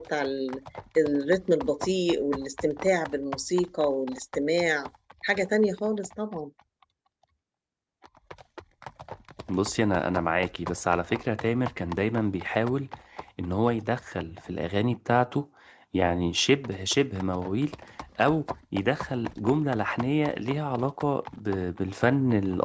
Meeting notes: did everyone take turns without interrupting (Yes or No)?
Yes